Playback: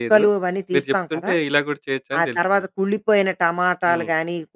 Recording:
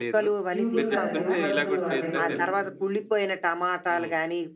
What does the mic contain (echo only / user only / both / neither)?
both